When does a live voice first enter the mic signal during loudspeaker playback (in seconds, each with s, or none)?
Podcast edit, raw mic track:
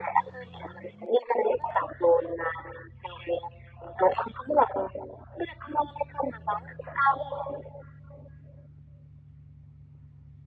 none